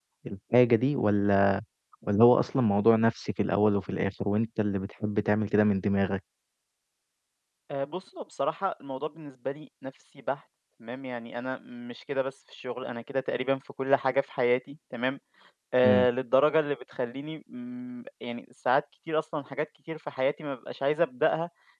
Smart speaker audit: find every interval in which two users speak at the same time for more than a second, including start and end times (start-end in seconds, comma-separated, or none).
none